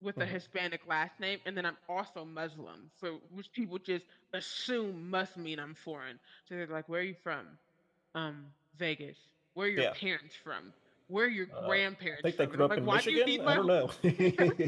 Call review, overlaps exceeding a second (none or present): present